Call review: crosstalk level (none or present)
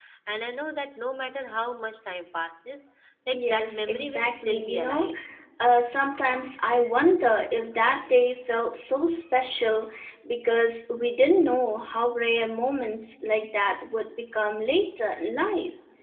present